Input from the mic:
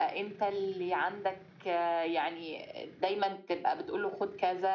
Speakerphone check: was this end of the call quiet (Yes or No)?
Yes